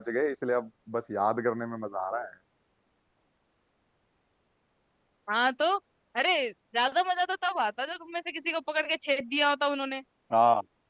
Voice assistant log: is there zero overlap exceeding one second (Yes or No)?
Yes